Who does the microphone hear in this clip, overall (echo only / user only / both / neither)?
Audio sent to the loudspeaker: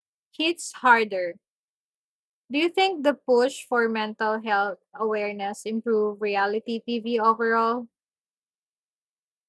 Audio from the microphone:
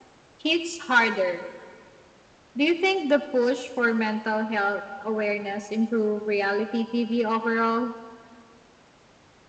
echo only